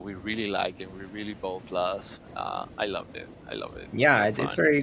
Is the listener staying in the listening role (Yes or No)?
No